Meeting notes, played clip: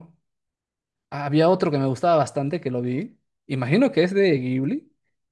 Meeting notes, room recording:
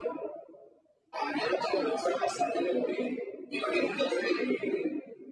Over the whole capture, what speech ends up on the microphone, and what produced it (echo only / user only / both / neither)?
echo only